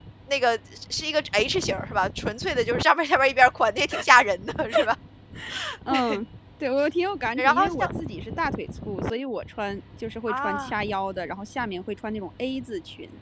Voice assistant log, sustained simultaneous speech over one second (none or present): none